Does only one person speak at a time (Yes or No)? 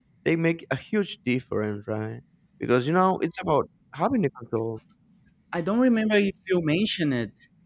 Yes